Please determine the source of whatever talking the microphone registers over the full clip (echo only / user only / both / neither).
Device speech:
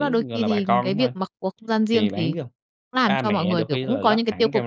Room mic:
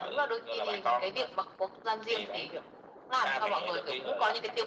echo only